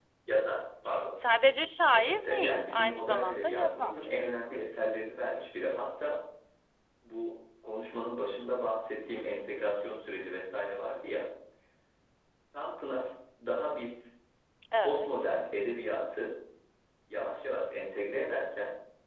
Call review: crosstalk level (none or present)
present